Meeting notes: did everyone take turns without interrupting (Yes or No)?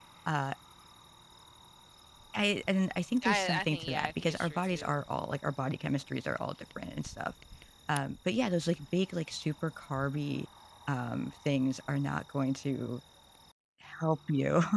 No